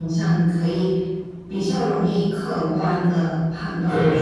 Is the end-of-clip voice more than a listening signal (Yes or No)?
No